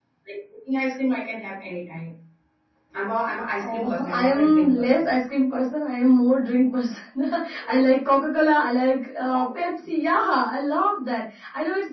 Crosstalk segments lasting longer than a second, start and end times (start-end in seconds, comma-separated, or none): 3.6-5.1